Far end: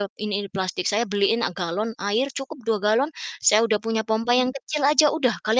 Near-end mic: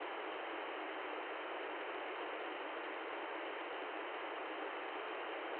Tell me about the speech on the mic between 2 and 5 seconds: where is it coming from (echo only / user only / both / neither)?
neither